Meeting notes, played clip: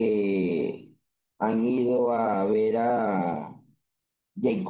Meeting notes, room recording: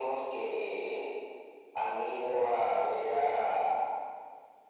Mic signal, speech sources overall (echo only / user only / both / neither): echo only